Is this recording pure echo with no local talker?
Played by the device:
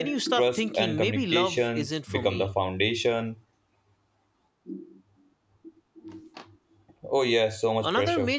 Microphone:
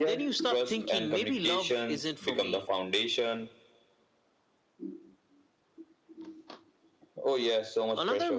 Yes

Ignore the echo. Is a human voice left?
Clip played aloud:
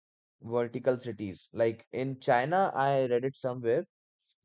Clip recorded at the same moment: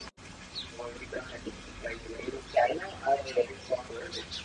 No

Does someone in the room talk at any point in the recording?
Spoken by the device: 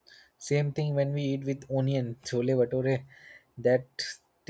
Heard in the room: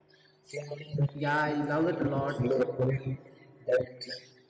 Yes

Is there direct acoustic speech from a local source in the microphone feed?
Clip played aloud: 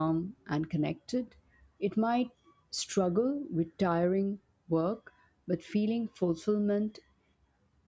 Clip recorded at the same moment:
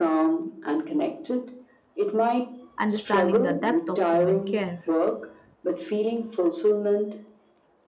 Yes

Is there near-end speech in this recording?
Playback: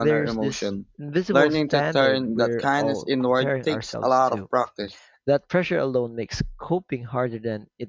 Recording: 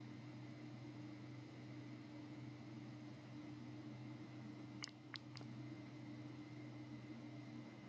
No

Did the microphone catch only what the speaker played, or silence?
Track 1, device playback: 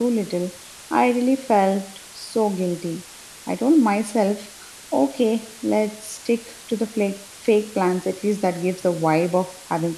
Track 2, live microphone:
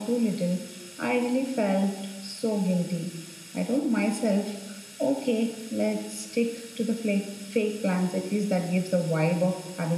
Yes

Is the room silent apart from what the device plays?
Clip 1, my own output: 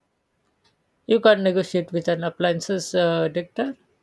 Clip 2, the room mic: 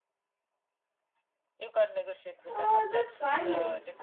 No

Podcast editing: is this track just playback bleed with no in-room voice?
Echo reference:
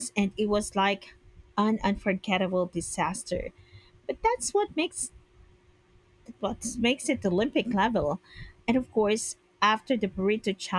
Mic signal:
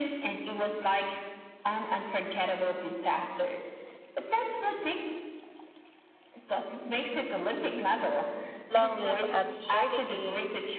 No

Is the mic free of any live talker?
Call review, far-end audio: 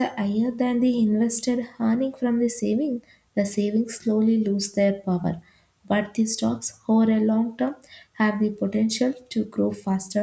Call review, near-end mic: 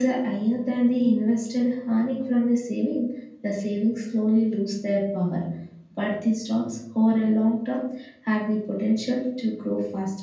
Yes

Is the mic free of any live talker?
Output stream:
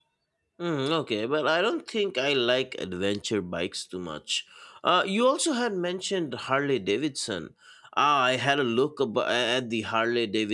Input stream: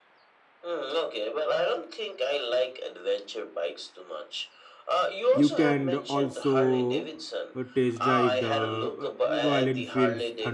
No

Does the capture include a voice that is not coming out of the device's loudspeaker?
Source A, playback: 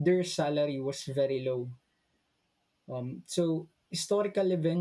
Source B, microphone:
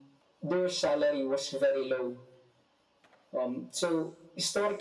No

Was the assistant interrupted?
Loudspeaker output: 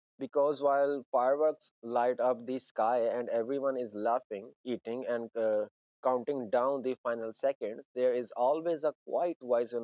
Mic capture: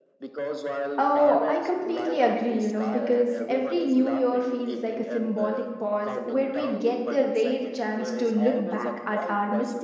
Yes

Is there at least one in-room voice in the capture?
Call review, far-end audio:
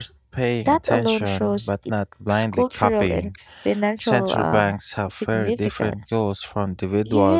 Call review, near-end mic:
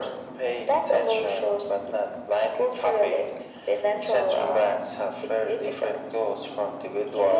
No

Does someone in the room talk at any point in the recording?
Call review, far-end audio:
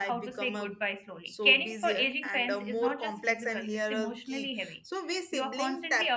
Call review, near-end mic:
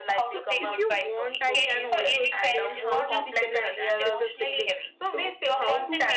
Yes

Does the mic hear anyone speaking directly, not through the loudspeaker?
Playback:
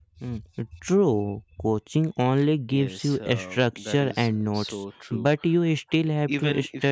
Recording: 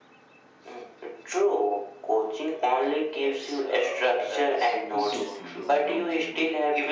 Yes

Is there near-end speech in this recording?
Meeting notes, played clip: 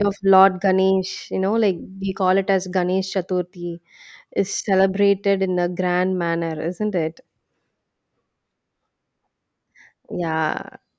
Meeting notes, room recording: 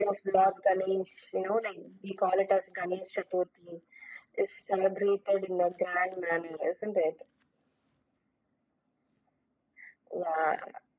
No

